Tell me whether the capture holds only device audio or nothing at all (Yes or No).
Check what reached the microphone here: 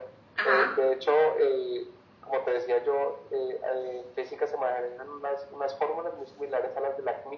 No